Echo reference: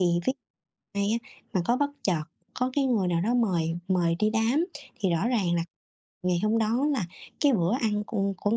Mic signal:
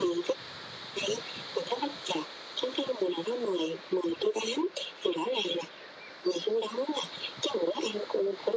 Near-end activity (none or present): none